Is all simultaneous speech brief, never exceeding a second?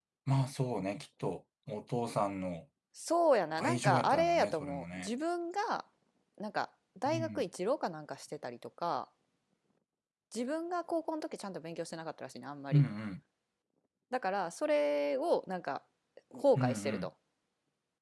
No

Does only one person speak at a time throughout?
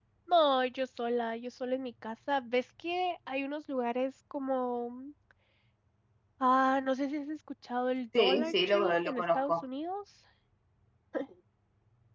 No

